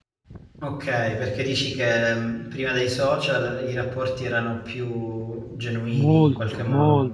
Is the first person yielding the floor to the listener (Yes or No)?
Yes